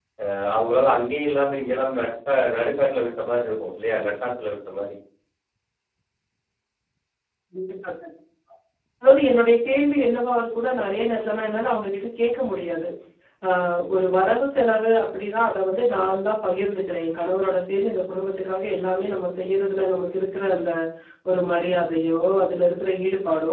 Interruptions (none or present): none